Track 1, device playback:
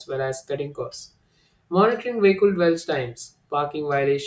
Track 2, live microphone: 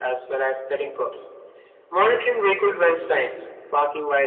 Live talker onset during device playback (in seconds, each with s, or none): none